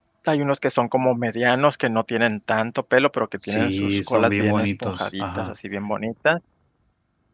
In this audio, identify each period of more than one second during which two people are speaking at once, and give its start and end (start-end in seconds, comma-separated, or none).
3.5-5.5